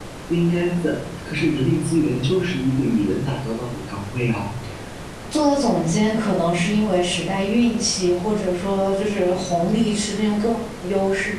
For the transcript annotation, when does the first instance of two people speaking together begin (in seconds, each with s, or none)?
none